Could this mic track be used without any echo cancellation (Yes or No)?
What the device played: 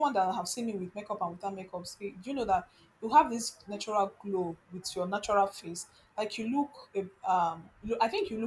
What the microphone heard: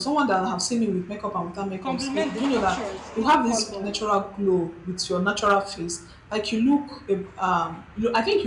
No